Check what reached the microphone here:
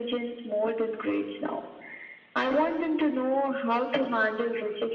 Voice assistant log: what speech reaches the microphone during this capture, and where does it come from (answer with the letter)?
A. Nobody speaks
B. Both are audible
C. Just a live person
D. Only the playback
D